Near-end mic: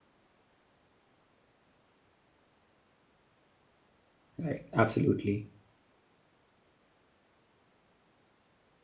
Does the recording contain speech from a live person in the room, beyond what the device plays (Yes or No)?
Yes